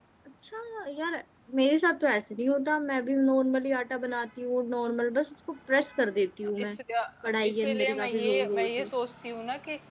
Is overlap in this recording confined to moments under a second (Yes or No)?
No